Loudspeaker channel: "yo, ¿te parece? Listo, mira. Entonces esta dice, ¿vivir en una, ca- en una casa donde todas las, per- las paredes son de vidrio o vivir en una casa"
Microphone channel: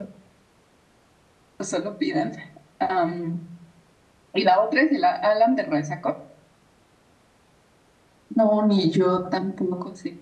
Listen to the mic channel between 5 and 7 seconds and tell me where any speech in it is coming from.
user only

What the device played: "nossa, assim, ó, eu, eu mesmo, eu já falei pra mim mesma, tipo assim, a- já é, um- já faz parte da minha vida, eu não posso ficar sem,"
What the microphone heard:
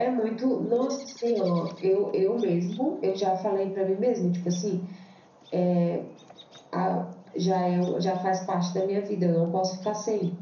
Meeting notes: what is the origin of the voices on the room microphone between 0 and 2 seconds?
echo only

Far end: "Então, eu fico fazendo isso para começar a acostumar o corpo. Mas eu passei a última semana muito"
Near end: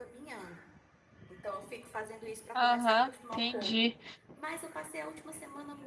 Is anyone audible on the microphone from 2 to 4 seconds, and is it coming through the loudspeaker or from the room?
both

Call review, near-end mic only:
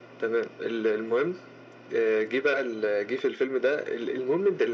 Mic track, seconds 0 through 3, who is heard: echo only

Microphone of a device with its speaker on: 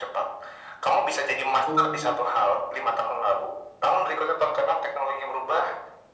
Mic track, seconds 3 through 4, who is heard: echo only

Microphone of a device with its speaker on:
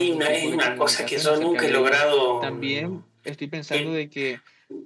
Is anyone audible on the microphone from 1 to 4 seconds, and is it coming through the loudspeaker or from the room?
both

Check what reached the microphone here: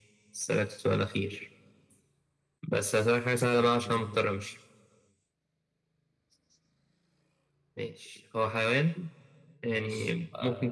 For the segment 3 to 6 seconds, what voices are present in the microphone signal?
echo only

